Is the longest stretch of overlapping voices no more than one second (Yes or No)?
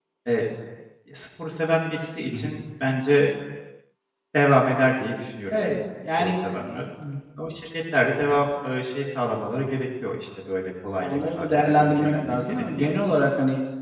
No